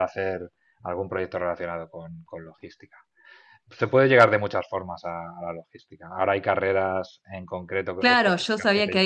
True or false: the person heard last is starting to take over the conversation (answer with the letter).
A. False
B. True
B